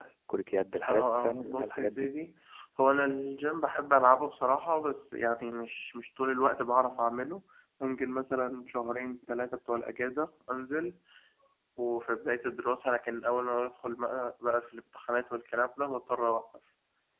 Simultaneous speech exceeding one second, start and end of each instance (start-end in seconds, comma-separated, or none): 0.9-2.1